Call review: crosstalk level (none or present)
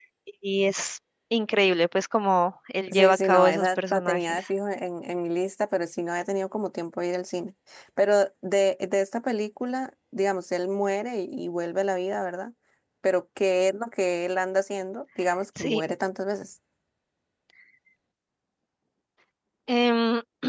present